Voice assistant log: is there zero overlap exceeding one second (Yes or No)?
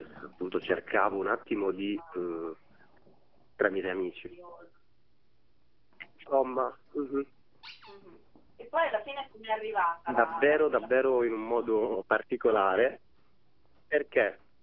No